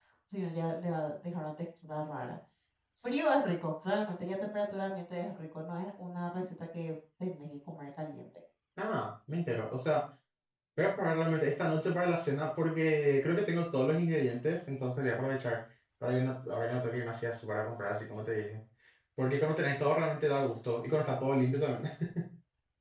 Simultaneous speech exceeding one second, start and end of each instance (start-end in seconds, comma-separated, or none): none